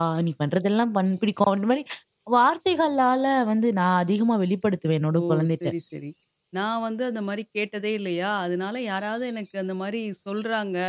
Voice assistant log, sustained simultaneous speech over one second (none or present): none